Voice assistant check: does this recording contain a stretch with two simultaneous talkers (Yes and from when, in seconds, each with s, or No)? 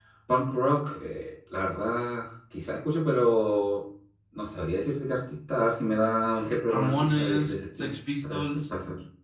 Yes, from 6.7 s